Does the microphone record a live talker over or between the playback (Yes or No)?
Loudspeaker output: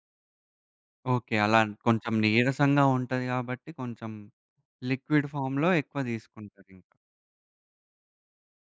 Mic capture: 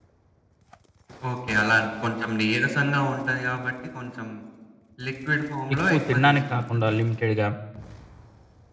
Yes